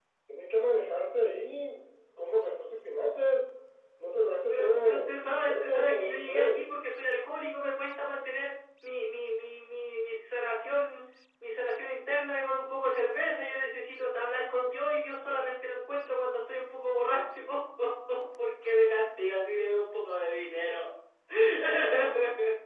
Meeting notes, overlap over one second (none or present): present